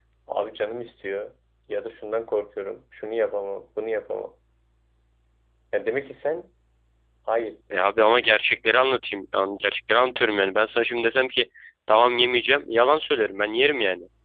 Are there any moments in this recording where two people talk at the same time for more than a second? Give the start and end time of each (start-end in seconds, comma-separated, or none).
none